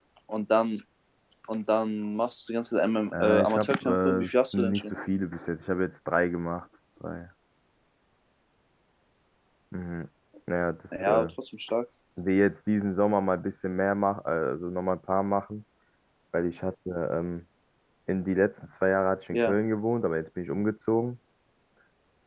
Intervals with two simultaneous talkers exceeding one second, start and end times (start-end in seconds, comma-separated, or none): 3.1-4.8